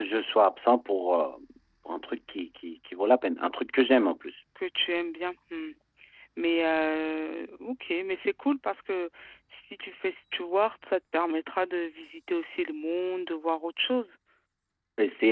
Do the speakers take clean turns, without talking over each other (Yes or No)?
Yes